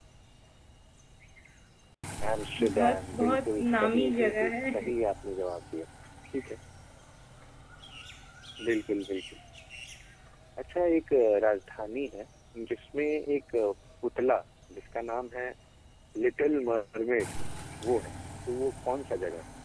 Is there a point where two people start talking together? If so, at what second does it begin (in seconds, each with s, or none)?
2.7 s